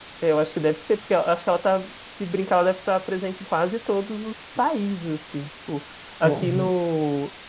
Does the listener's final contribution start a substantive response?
No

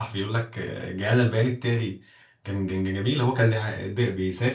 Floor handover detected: No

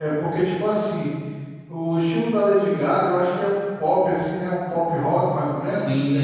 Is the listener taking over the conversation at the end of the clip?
Yes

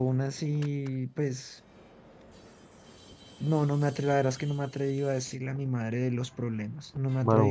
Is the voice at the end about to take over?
Yes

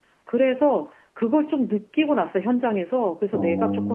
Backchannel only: Yes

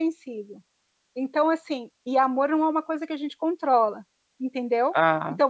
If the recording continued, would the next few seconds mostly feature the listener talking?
No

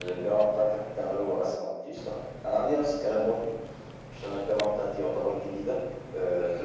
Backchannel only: No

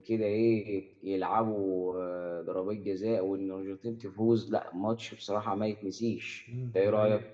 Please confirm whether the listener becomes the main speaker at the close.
Yes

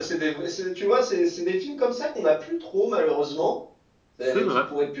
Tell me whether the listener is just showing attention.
Yes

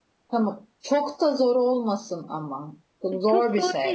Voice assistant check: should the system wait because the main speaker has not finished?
No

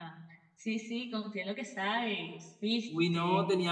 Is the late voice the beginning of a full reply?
Yes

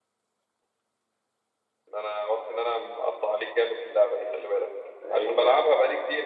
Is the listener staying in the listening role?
Yes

